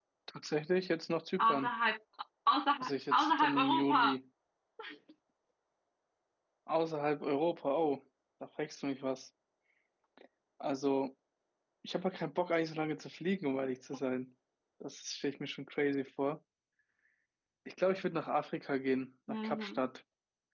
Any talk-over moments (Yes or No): Yes